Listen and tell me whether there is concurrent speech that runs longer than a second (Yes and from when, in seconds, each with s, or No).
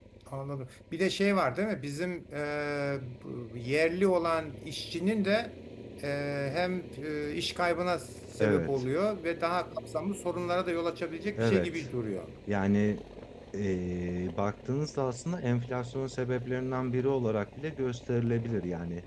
No